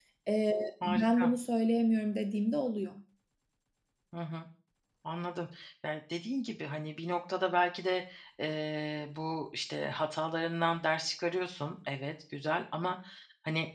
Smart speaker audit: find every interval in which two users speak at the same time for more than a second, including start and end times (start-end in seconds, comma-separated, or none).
none